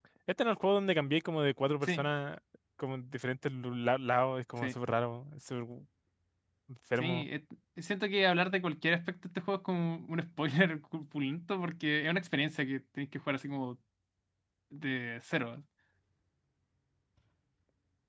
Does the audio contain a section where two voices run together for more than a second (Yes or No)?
No